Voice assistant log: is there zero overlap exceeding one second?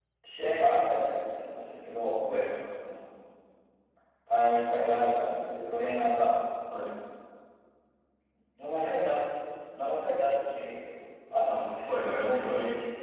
No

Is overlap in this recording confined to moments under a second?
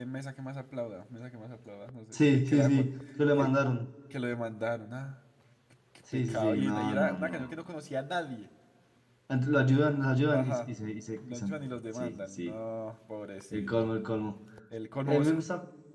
No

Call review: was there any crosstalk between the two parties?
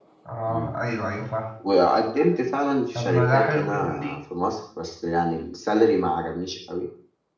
Yes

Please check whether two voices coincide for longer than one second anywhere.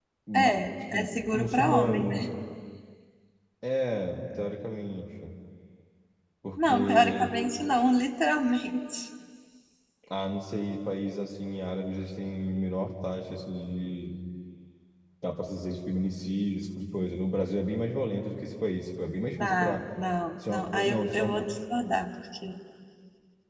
Yes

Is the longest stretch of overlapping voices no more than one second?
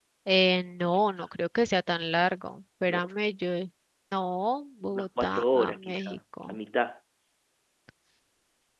No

